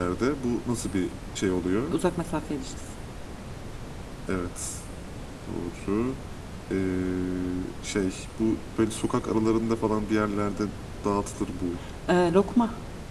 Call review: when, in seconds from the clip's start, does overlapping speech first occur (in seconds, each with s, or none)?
none